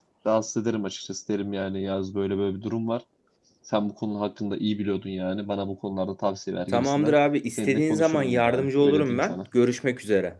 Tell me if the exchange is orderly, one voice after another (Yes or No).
No